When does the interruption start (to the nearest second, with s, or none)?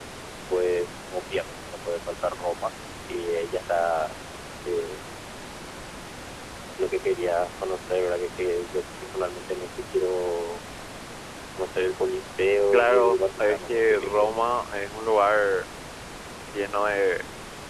13 s